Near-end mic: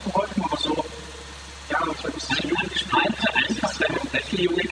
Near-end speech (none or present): none